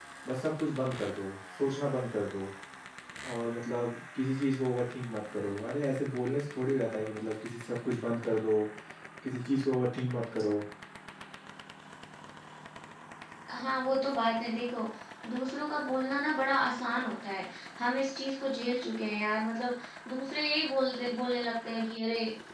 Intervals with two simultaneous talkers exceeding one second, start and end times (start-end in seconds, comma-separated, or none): none